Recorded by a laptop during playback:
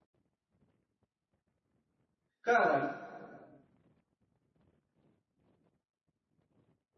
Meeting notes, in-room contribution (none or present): present